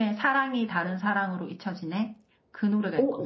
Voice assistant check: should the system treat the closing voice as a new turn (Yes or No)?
Yes